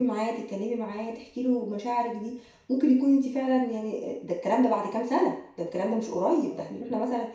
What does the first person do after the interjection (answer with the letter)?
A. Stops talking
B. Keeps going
B